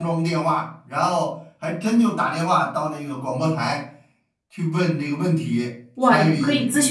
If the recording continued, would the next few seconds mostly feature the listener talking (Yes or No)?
Yes